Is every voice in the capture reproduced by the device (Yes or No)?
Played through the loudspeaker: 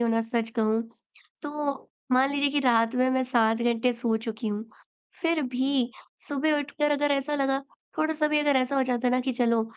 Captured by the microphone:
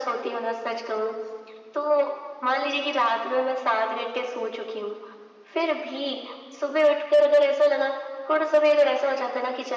Yes